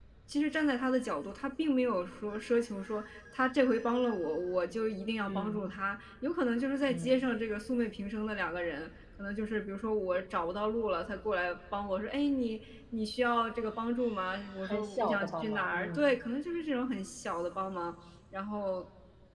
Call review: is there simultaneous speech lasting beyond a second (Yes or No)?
Yes